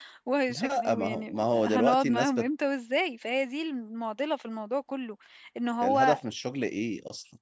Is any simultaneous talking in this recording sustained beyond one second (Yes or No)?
Yes